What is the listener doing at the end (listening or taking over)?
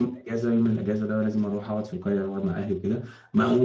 listening